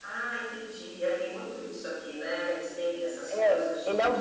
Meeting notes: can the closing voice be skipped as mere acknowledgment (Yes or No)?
No